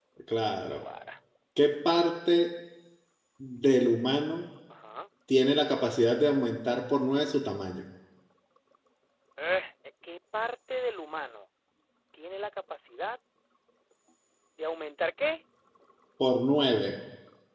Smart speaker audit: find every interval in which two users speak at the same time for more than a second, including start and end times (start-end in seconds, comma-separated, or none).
none